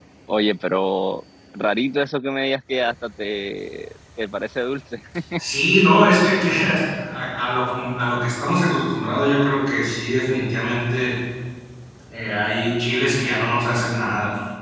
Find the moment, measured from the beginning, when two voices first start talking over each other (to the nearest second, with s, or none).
none